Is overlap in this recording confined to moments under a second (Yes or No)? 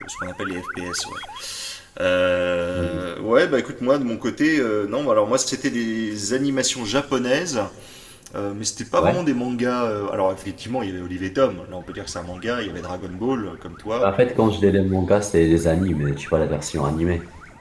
Yes